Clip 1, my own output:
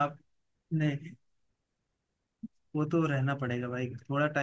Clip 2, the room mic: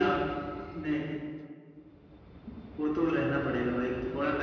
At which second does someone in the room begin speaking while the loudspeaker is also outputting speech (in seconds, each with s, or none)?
none